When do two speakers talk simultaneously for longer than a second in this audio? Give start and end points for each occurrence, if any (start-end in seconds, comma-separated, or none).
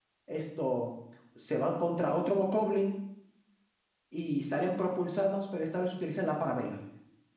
none